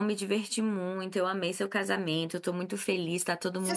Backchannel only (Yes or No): No